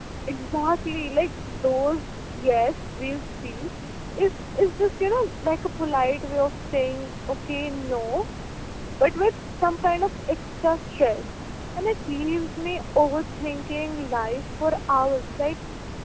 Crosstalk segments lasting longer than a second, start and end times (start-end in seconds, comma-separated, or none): none